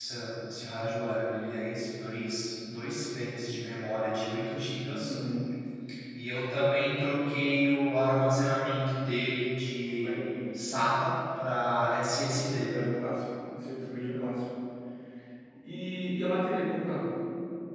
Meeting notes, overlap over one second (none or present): none